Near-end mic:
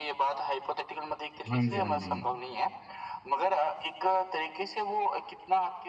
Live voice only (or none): हाँ जी, हाँ जी।